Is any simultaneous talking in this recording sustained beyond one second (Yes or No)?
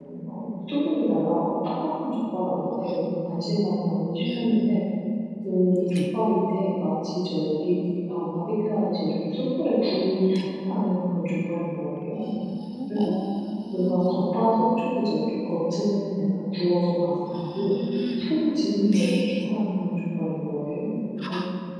No